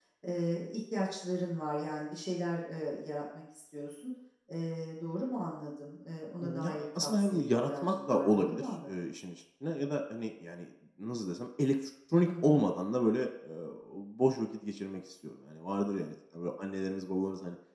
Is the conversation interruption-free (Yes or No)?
No